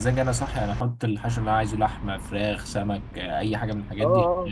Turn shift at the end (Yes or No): Yes